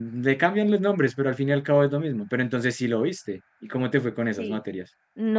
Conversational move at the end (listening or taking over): taking over